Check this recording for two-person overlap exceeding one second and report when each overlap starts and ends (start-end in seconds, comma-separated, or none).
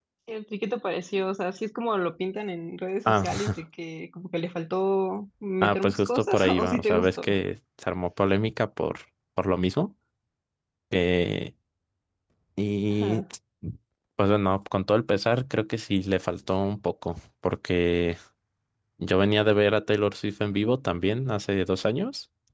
5.6-7.3